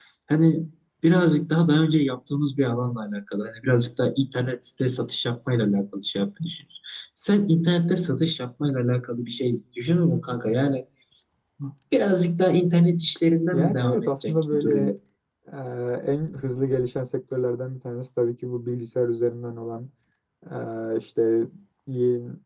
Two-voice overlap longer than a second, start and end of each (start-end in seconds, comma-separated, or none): 13.5-14.9